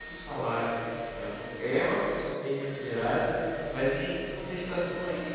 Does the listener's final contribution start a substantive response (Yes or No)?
No